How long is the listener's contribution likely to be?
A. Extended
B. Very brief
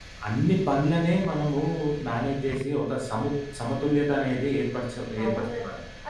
A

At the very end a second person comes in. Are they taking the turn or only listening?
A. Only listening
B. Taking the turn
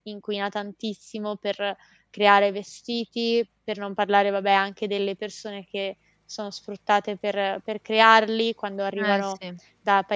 A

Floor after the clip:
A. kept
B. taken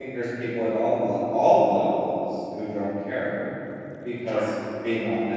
A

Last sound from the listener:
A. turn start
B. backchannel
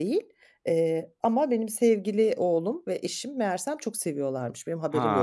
B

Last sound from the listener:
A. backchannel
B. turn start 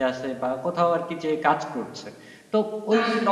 A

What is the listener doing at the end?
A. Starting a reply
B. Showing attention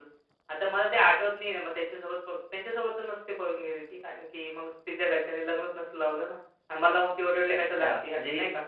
A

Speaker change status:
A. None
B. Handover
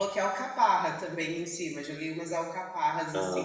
B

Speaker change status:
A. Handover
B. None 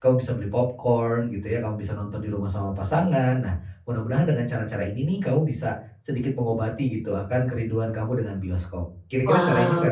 A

